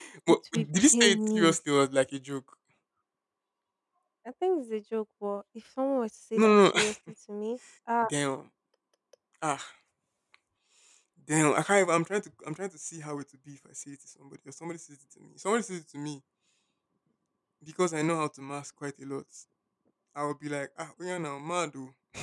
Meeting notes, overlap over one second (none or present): present